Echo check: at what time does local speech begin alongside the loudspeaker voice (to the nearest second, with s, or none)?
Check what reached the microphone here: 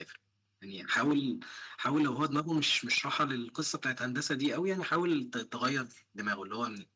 none